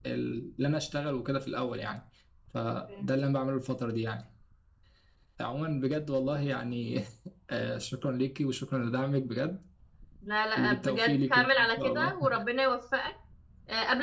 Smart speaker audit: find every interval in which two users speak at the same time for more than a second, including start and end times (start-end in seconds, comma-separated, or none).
10.6-12.1